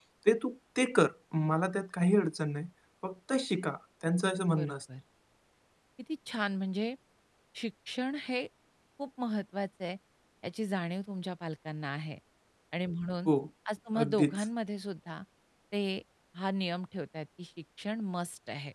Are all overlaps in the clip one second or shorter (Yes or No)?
Yes